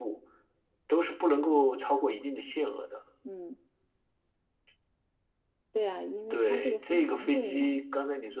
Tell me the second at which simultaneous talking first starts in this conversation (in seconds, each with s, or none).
6.3 s